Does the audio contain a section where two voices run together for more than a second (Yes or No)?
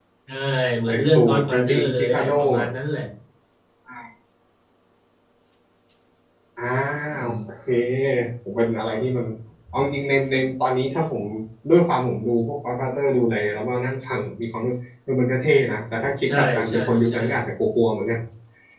Yes